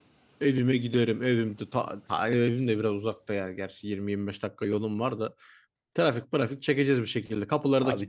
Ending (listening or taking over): taking over